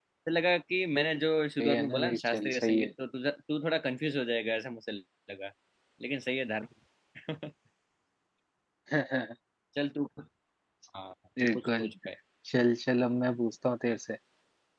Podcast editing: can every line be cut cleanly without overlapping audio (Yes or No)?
No